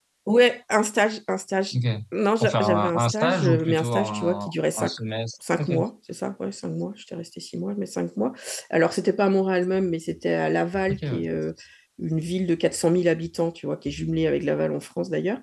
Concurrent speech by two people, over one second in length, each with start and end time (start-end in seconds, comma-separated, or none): 2.4-5.0